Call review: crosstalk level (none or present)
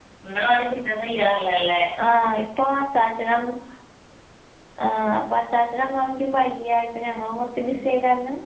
none